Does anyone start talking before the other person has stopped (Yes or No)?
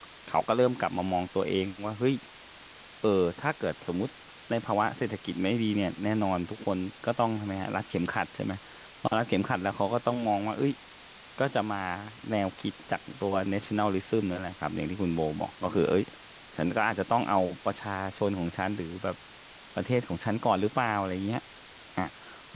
No